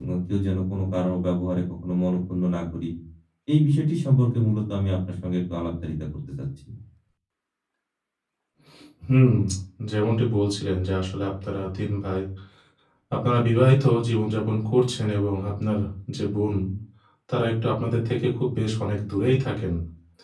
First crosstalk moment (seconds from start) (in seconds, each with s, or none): none